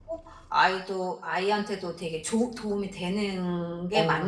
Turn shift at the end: Yes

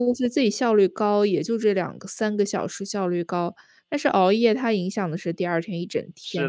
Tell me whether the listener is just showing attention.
No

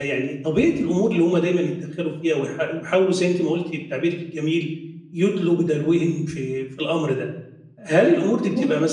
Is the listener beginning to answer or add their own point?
No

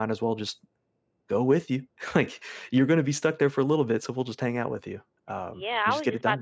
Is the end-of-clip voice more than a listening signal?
Yes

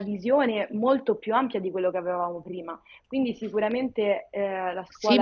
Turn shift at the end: Yes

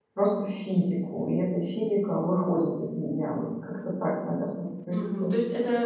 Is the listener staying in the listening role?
No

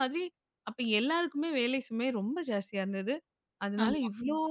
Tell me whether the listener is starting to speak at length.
No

